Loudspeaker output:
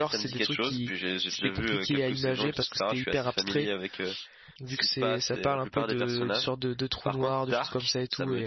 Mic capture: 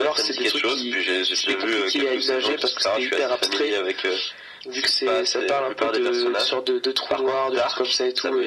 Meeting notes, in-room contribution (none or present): none